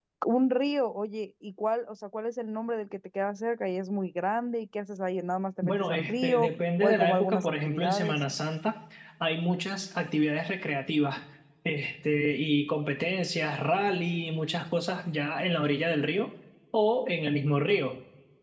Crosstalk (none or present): present